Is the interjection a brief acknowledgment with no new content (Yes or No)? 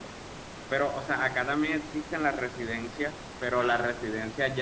Yes